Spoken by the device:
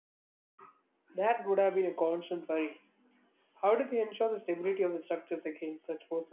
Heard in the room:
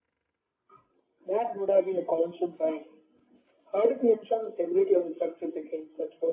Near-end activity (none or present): none